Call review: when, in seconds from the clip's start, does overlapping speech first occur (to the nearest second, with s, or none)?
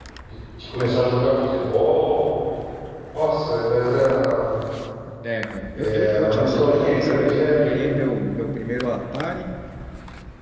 6 s